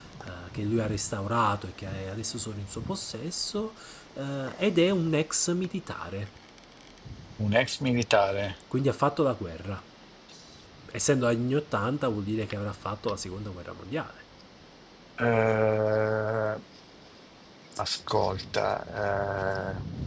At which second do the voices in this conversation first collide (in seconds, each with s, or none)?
none